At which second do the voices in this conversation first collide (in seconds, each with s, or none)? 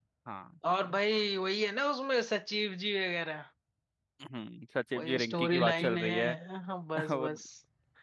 5.0 s